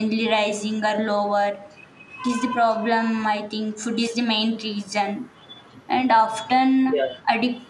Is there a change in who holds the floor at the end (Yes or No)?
No